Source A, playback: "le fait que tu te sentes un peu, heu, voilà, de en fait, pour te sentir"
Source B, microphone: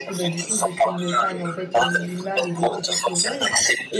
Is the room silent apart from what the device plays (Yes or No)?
No